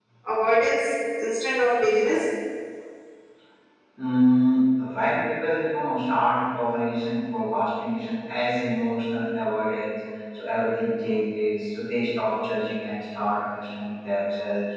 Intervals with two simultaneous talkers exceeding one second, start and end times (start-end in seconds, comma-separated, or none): none